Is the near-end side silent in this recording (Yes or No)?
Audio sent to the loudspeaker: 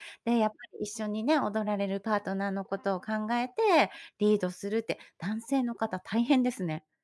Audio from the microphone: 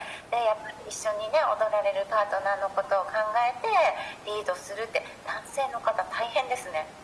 Yes